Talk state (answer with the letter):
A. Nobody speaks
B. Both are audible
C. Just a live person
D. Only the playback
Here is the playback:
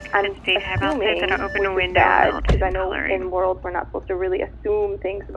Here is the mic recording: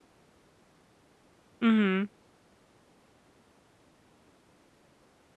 C